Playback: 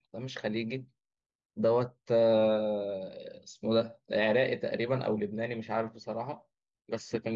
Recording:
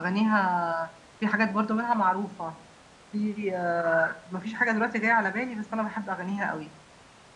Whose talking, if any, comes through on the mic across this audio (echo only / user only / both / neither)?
user only